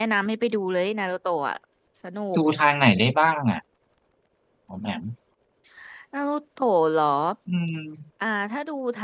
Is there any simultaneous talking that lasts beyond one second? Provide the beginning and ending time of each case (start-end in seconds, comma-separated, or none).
none